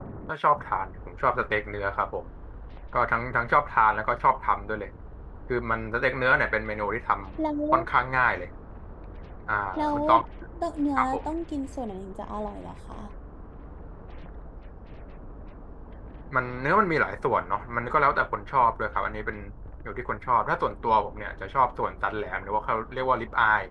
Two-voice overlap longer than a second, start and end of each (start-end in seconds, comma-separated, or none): none